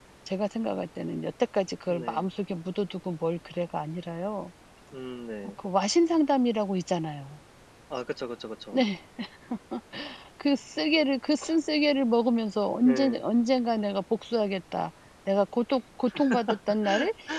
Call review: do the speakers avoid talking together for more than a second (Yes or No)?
Yes